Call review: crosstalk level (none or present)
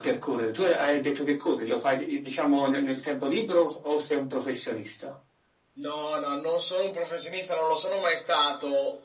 none